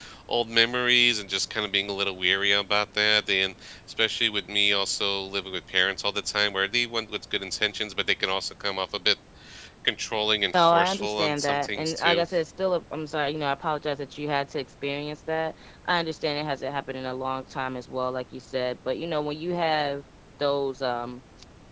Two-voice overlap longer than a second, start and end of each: 10.5-12.2

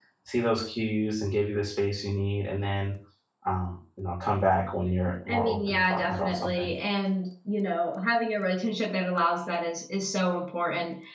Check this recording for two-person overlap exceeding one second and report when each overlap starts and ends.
5.3-6.7

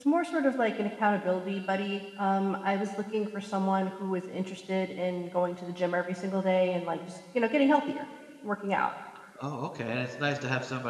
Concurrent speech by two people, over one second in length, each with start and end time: none

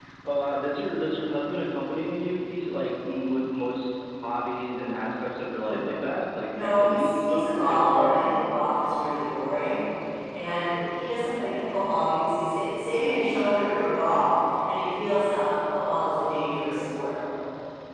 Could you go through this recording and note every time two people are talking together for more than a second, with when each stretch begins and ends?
6.5-8.2

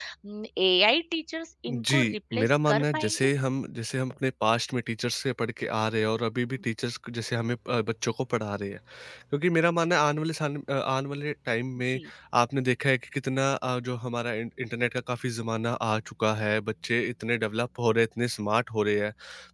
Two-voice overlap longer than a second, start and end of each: 1.7-3.3

